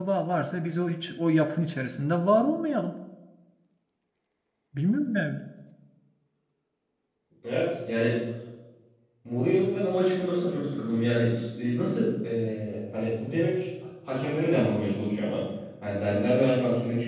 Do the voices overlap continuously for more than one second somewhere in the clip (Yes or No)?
No